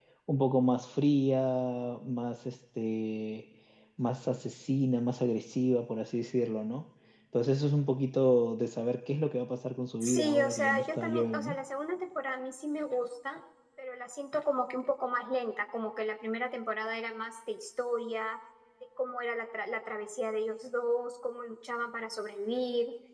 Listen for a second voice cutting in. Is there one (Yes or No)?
Yes